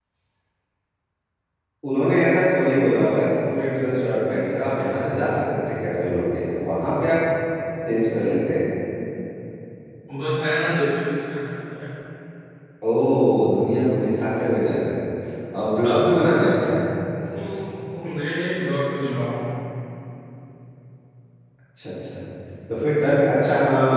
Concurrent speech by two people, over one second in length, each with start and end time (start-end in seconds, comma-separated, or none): none